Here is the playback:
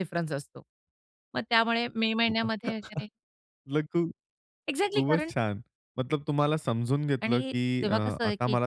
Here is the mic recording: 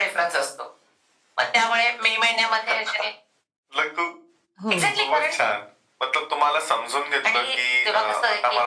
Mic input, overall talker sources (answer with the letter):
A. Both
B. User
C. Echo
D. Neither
A